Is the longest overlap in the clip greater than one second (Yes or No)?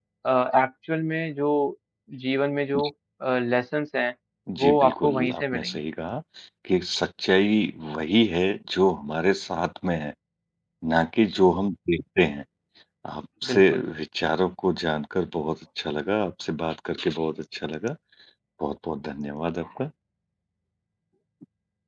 Yes